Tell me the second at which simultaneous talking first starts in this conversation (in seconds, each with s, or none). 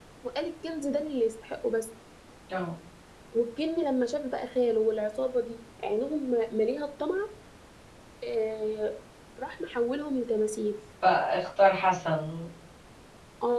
none